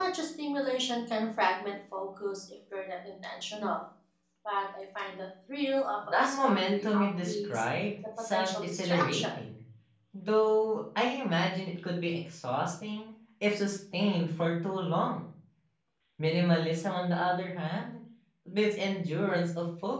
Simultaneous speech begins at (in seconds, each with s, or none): 6.0 s